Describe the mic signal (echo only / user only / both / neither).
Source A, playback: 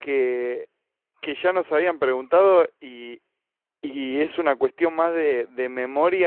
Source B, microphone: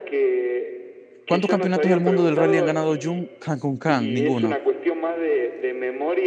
both